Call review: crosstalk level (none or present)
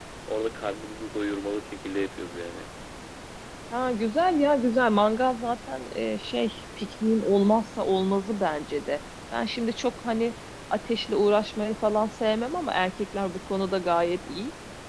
none